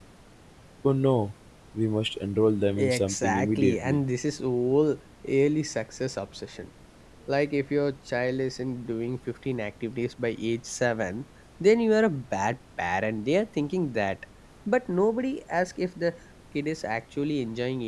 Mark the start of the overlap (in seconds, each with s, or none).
2.7 s